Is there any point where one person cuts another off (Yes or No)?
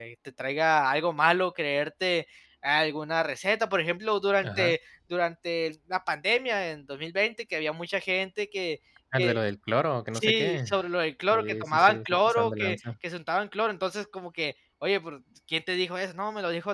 Yes